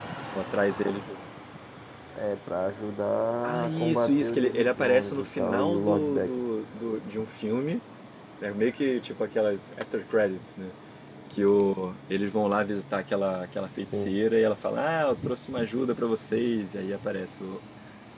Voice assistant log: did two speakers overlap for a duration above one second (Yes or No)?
Yes